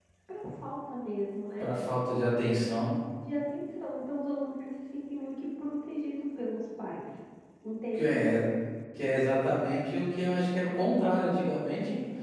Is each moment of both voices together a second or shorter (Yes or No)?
Yes